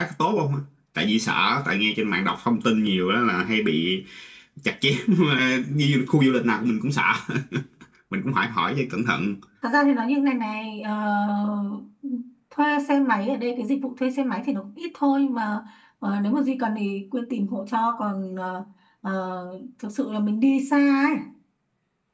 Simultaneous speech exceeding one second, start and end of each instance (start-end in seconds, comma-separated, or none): none